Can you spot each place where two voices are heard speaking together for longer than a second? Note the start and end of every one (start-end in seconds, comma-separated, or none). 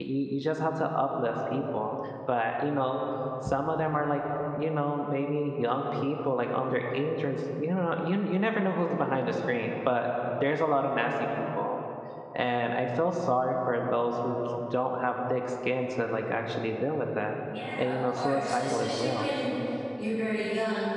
17.8-19.3